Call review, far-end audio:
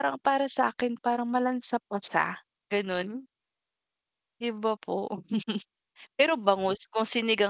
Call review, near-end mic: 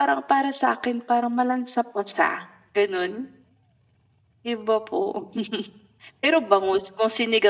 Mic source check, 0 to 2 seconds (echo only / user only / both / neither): echo only